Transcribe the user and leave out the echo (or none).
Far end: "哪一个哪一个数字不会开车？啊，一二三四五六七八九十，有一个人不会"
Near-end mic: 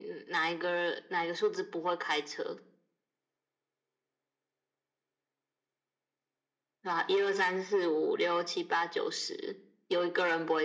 none